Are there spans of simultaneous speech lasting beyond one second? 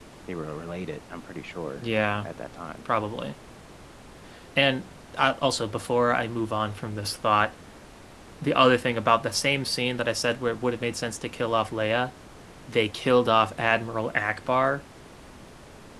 No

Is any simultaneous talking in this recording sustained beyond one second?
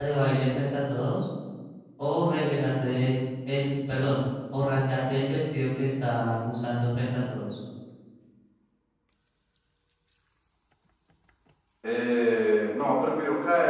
No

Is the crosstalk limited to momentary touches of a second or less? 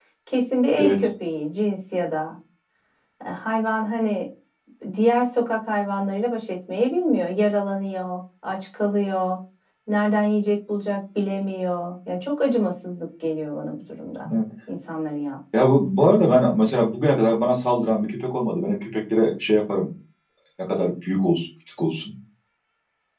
Yes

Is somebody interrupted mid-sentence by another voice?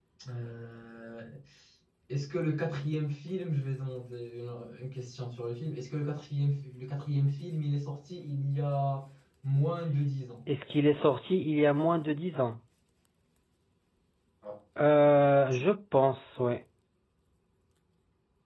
No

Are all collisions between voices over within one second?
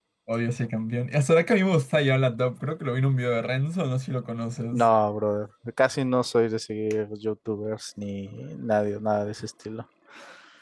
Yes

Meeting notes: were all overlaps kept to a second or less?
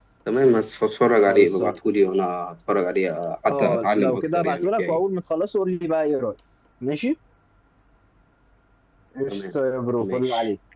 No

